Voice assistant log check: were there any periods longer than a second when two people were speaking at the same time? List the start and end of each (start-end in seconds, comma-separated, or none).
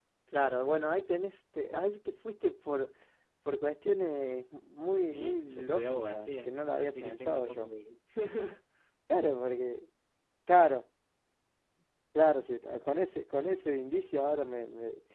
5.1-7.7